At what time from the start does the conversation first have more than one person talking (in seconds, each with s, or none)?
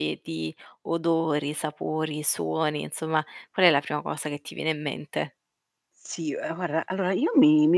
none